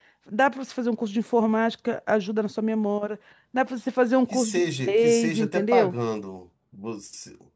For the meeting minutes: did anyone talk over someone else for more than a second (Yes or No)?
Yes